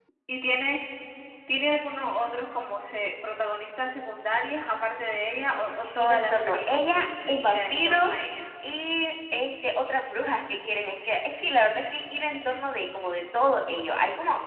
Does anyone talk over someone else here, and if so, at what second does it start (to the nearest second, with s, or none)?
6 s